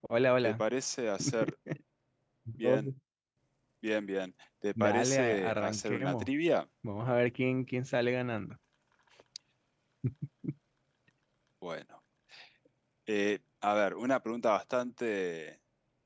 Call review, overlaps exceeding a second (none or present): present